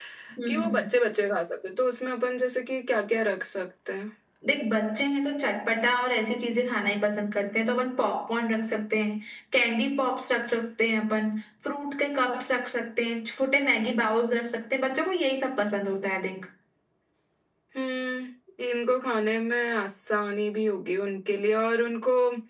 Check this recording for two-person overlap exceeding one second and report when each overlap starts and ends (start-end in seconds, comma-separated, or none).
none